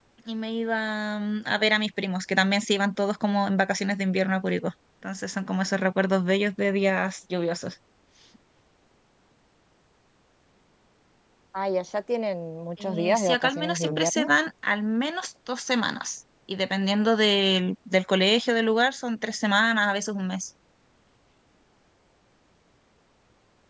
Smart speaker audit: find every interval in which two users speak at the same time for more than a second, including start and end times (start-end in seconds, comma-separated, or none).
12.8-14.3